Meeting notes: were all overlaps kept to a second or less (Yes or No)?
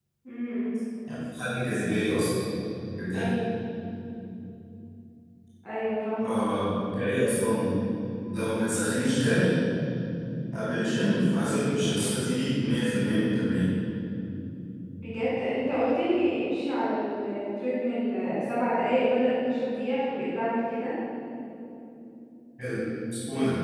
Yes